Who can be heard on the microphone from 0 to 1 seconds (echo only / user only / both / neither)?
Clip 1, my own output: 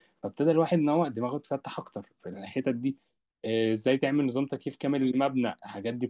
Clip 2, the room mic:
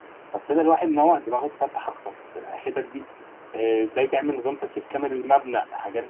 echo only